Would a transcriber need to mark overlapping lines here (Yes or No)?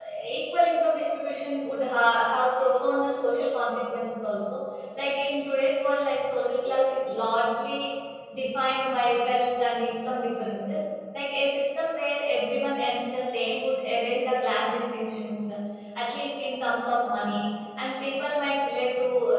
No